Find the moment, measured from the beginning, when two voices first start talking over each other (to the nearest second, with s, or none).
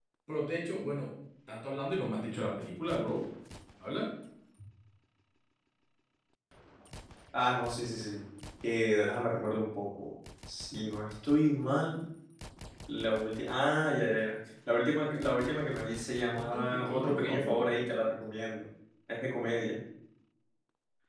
16 s